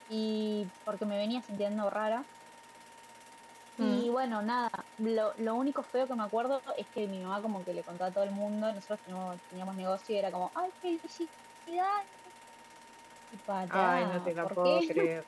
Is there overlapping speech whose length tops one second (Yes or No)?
Yes